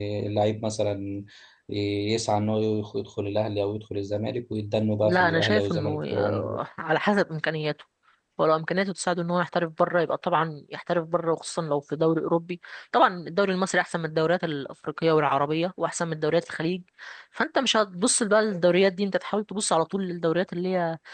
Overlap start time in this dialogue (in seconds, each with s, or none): 5.0 s